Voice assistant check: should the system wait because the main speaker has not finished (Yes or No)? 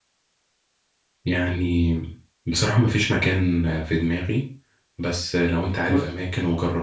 Yes